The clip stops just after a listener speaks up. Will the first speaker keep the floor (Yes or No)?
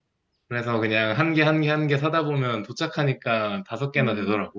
No